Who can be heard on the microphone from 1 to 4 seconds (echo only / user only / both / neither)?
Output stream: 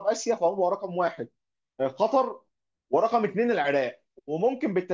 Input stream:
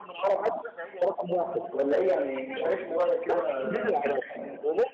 both